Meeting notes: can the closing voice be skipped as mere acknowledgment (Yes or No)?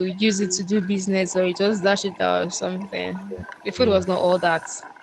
Yes